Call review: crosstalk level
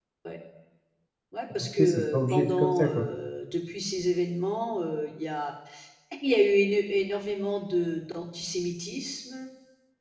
present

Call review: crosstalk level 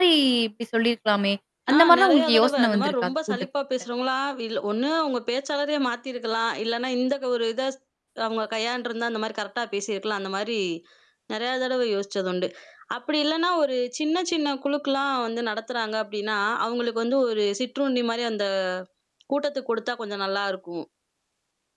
present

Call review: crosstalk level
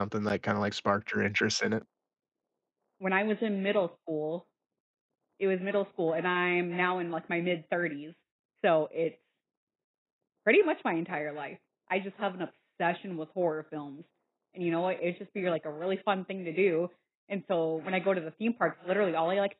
none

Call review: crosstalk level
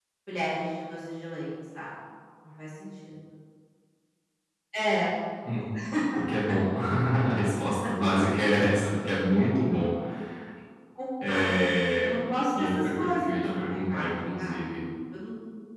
present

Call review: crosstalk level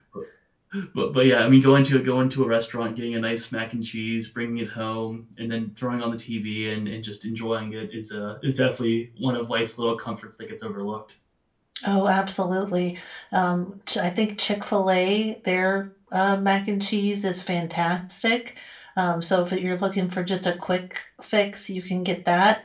none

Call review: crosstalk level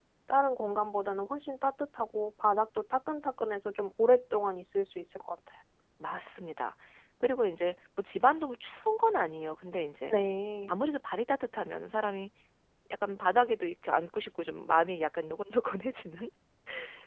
none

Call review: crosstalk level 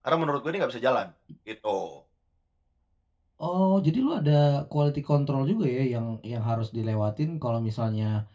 none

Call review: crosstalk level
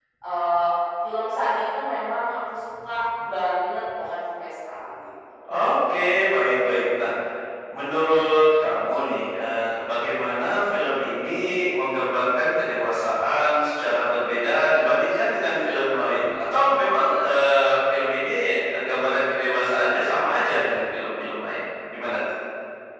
none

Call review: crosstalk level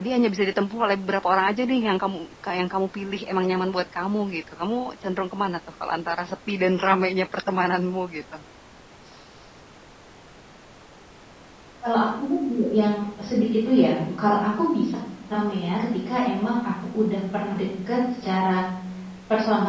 none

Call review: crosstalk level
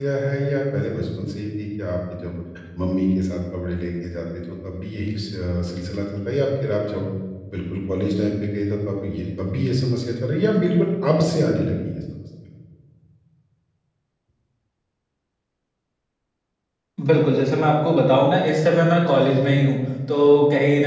none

